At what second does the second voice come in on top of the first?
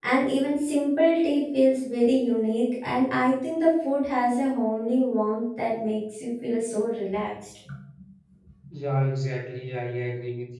none

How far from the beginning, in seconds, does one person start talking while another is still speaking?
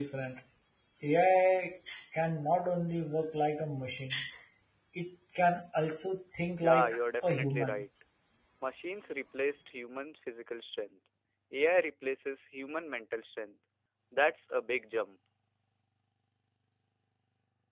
7 s

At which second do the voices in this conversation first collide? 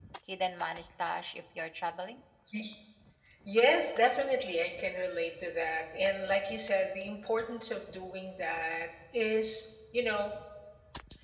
none

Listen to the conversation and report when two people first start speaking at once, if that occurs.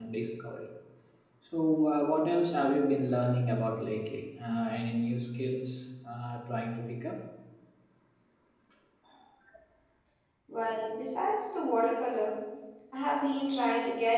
none

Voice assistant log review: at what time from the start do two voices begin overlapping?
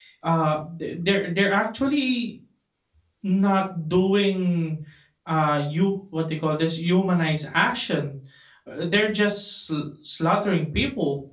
none

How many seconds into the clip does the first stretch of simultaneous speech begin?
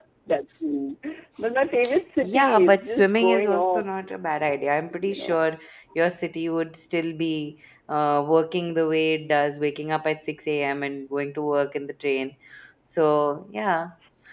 2 s

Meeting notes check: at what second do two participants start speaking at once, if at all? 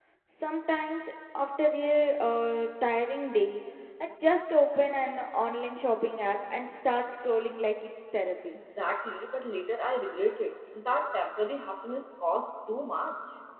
none

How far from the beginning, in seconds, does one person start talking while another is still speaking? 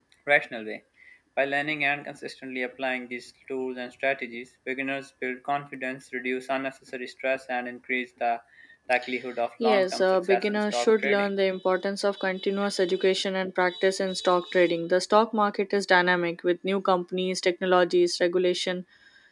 10 s

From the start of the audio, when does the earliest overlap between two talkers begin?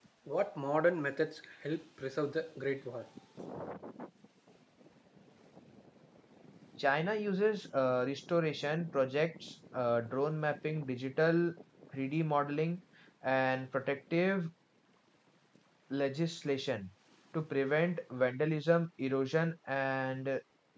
none

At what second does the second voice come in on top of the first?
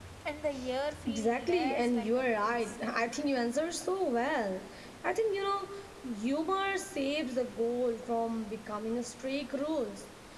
1 s

